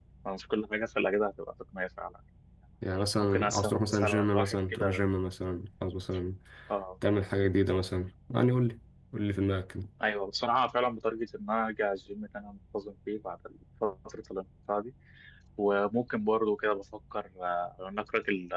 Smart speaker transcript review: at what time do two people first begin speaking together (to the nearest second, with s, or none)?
3 s